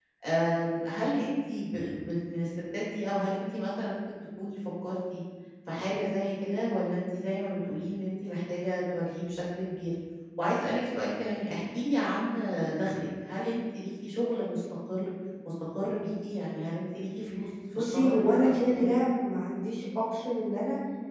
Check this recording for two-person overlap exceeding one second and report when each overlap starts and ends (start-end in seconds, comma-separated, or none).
17.7-18.9